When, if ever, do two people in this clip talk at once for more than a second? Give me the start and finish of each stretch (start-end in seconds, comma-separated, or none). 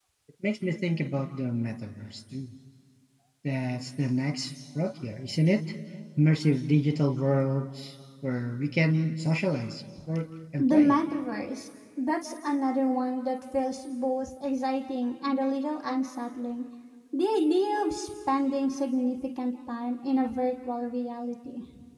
none